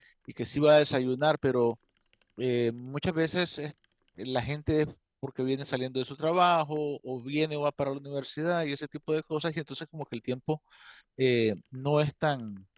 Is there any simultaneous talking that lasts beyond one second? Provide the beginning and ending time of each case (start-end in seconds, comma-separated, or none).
none